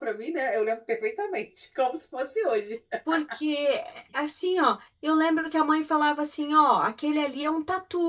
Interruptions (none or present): none